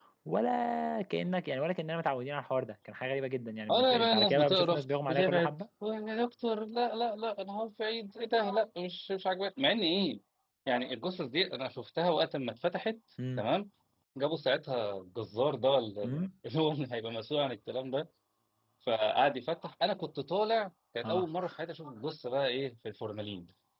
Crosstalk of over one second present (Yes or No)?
Yes